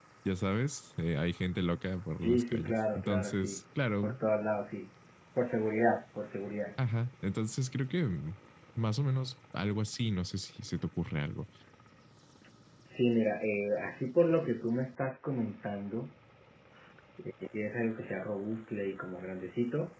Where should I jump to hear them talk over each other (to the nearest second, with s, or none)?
2 s